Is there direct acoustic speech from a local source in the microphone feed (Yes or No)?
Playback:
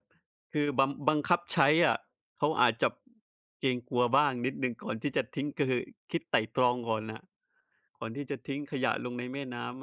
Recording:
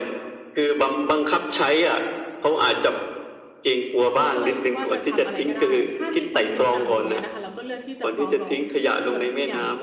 Yes